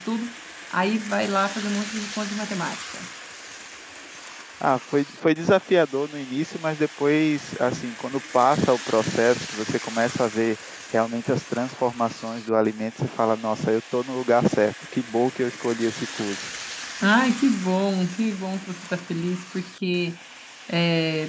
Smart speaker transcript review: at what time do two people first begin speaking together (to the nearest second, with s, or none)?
none